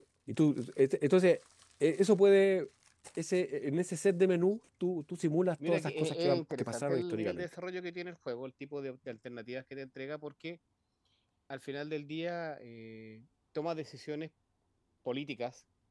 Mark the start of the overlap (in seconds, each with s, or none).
5.6 s